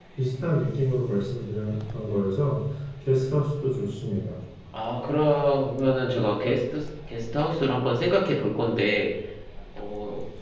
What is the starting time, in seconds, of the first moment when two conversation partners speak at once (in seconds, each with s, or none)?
none